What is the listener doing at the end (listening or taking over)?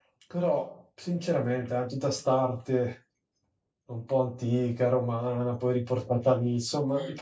listening